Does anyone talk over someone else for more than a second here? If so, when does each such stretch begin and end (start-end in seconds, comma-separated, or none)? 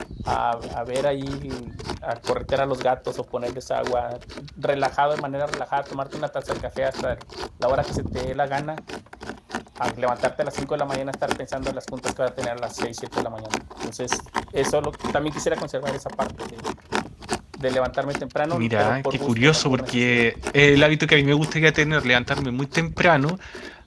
18.5-20.2